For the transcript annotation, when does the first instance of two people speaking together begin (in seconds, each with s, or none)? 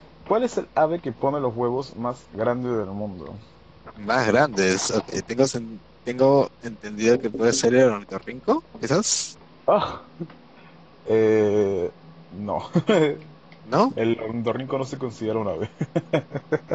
none